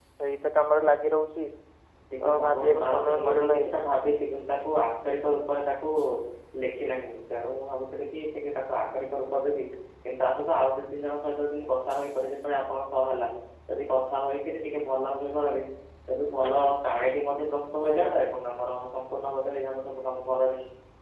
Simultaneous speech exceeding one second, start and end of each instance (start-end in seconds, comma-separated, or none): 2.2-3.7